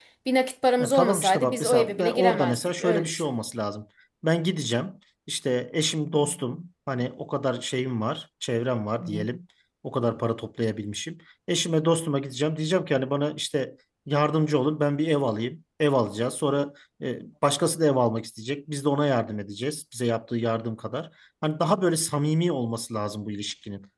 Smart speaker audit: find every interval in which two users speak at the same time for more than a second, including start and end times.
0.8-3.3

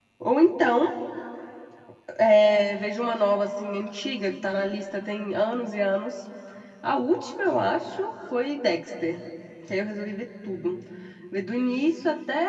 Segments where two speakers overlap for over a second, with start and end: none

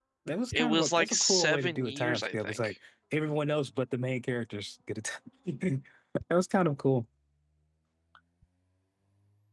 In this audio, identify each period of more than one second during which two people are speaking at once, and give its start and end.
0.5-2.7

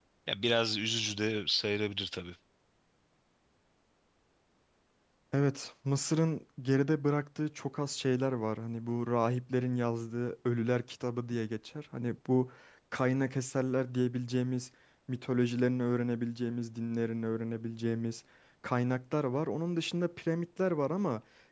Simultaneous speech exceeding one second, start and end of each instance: none

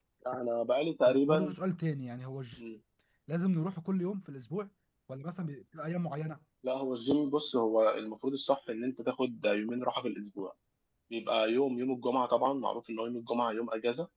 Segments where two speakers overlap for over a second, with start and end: none

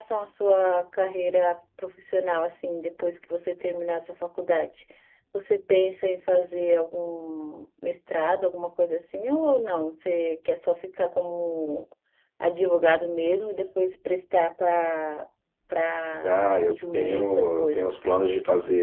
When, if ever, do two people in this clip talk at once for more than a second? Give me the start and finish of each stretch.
16.2-18.0

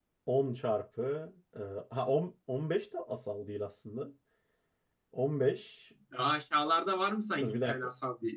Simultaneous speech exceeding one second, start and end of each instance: none

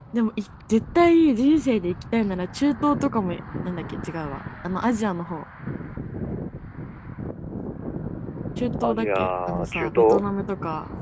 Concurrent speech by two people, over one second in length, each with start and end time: 8.8-10.2

